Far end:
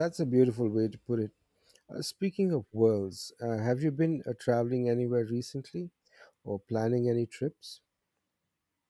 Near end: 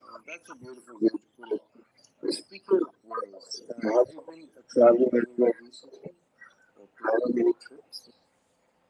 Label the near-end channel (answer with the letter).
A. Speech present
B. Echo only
B